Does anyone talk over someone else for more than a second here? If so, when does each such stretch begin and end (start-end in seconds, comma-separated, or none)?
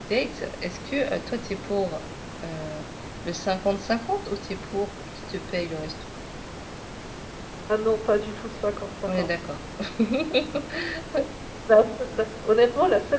none